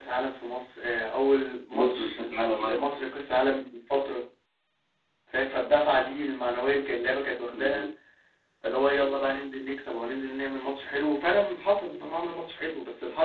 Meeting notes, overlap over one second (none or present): none